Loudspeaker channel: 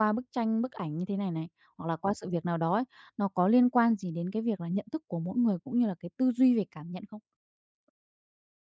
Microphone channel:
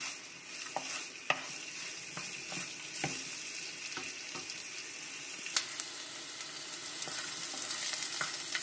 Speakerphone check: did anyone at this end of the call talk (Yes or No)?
No